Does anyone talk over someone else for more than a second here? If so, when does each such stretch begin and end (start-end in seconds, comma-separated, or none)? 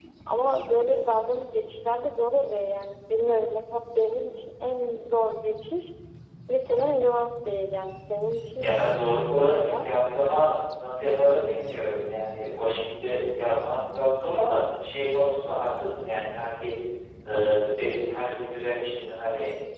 8.6-9.9